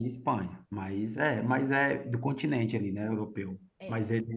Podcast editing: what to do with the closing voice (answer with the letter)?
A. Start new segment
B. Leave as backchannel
B